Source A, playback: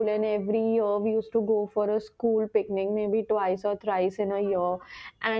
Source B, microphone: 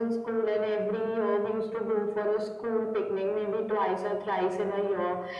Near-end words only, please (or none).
none